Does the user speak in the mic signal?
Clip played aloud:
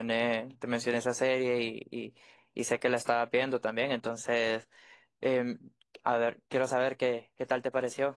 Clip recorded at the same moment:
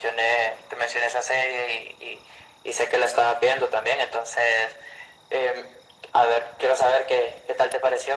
No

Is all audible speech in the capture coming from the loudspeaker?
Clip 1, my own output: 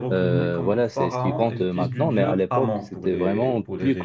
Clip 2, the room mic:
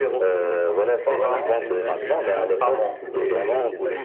No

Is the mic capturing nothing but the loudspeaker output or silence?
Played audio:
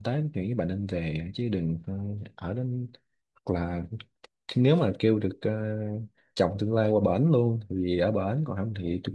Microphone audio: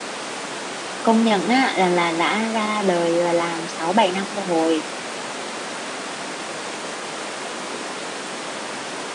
No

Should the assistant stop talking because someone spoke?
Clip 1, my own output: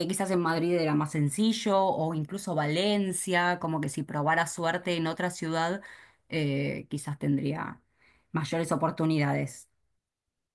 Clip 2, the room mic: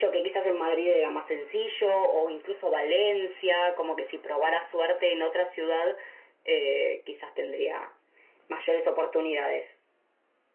No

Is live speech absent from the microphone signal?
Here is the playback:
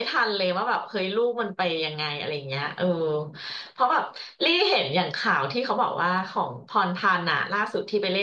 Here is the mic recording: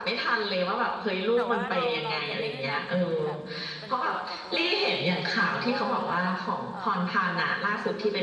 No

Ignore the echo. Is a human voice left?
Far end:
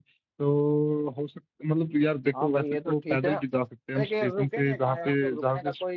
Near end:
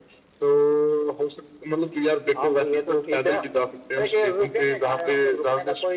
No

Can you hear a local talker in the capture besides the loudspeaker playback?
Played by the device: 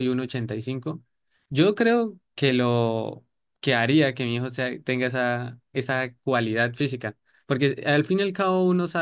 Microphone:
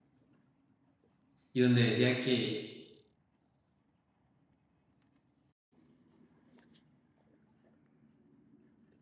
Yes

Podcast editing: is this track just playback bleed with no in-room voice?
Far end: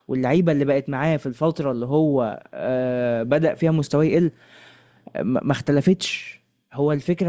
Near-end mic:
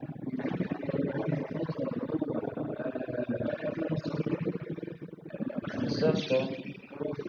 No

